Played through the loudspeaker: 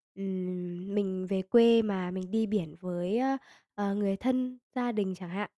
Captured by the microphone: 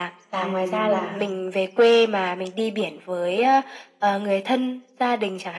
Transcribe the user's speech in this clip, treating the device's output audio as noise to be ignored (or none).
và ngoài ra là